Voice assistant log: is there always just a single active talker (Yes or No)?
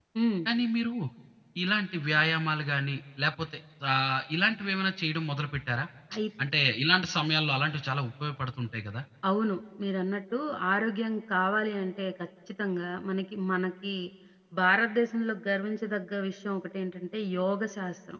Yes